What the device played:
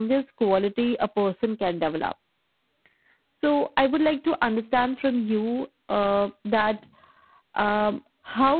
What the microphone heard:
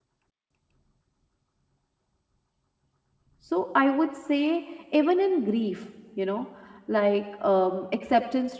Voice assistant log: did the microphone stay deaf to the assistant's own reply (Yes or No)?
Yes